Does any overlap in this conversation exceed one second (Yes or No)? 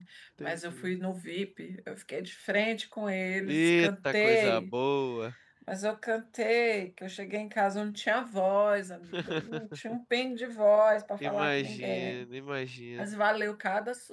Yes